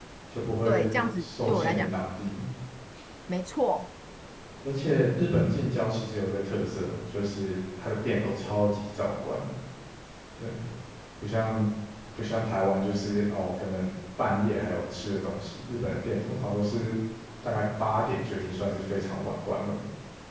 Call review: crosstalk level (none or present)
present